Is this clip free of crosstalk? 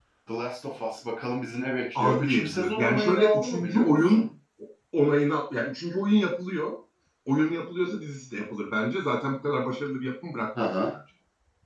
No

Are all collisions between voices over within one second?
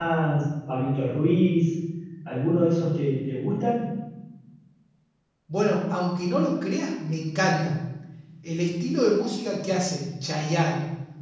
Yes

